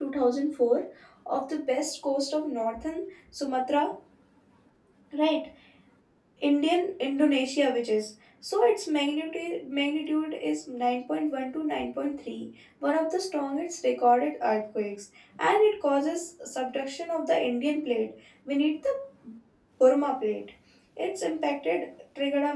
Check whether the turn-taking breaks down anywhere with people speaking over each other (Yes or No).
No